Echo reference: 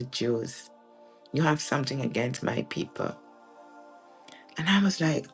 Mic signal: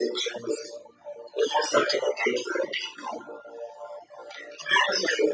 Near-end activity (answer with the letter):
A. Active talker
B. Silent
B